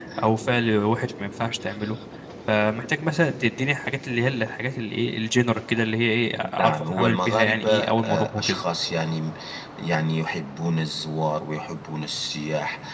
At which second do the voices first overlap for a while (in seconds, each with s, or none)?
6.3 s